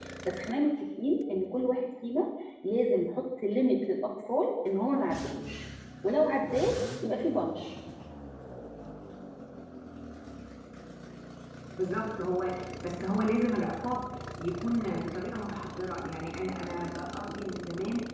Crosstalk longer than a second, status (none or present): none